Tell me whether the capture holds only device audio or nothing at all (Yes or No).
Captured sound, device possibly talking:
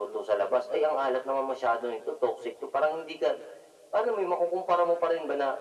Yes